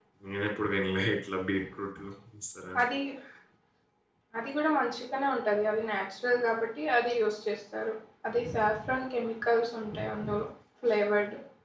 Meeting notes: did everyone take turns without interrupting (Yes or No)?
Yes